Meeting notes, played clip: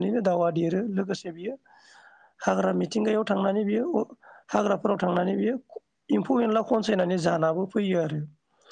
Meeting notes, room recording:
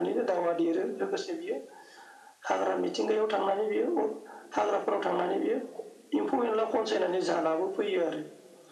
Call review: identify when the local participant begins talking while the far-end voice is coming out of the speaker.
none

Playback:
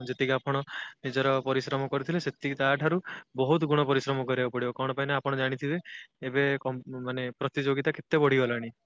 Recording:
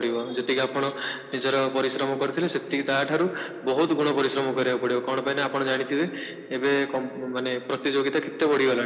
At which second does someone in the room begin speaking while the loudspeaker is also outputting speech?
none

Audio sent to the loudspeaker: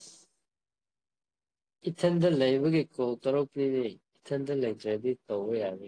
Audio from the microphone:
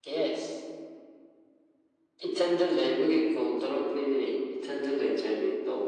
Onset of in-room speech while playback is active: none

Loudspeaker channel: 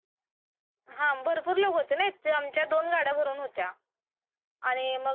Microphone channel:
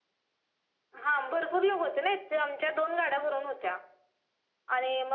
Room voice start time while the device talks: none

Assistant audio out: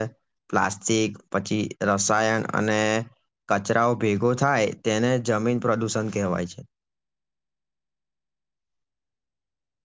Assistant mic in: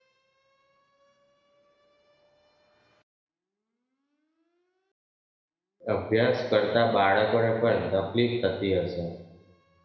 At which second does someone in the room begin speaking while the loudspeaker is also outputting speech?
5.9 s

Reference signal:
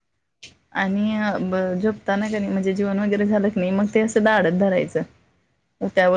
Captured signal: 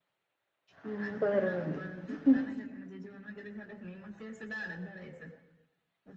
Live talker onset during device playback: 0.8 s

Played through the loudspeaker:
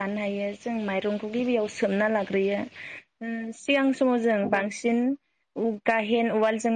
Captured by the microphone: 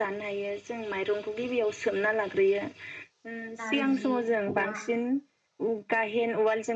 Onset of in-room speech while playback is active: 3.6 s

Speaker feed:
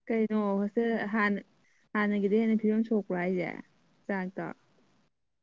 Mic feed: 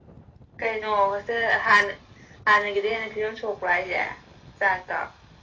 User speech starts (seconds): none

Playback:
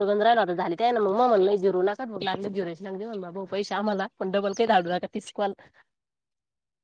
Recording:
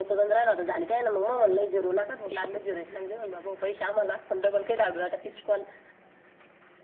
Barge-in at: none

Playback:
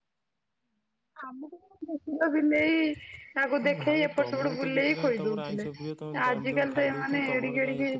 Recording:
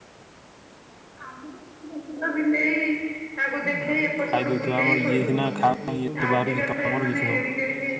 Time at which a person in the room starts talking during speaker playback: 4.3 s

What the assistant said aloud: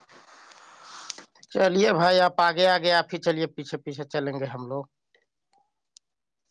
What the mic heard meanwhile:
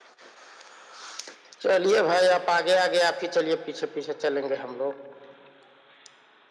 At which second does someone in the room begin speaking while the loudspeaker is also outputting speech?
none

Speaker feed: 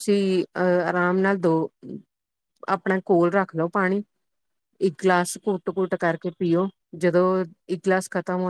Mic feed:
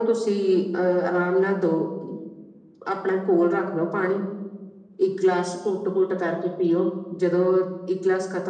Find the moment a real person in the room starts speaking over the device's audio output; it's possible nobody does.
none

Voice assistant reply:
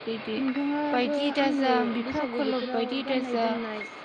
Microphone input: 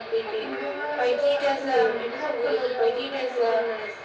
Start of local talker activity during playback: none

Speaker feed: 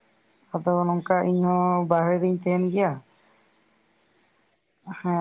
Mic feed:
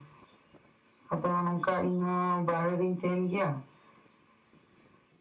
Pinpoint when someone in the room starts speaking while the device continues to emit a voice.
none

